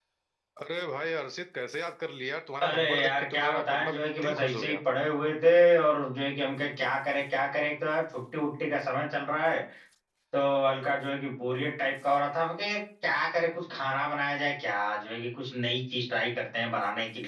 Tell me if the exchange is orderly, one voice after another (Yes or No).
No